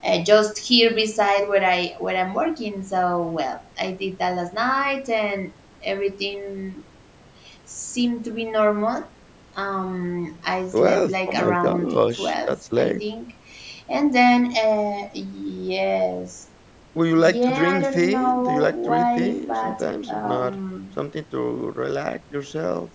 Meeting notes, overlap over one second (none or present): present